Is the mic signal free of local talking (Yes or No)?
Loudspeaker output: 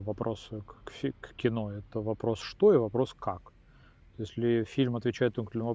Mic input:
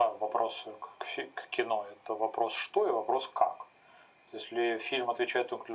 Yes